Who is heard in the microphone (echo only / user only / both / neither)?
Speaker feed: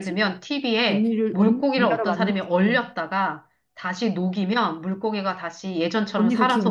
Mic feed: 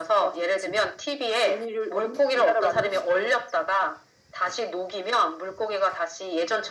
echo only